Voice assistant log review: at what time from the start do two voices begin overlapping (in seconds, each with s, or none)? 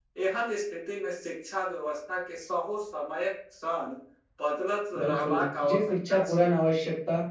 5.0 s